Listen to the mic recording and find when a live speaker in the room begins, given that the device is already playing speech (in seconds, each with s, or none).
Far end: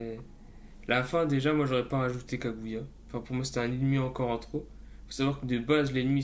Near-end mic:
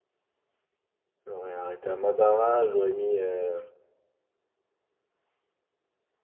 1.2 s